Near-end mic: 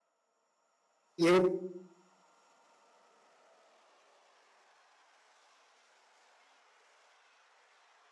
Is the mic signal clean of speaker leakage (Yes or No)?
Yes